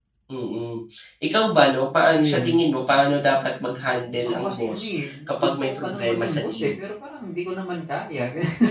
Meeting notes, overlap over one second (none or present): present